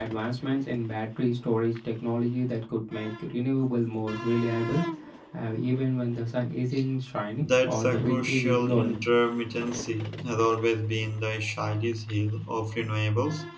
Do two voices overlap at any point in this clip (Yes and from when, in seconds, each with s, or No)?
Yes, from 7.4 s